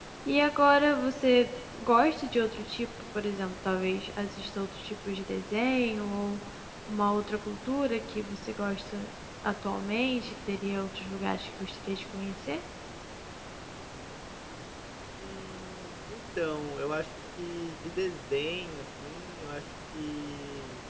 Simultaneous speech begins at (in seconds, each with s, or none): none